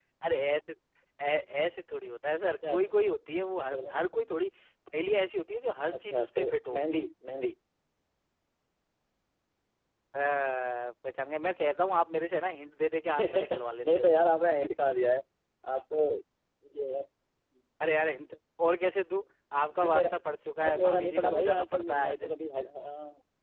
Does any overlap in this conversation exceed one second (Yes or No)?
Yes